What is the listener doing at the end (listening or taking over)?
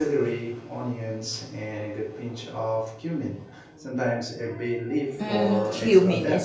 taking over